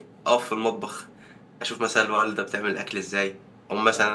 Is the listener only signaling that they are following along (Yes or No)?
Yes